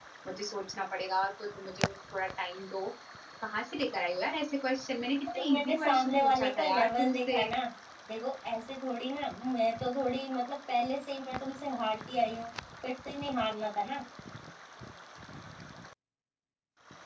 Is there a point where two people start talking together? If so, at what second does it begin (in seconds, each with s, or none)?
5.3 s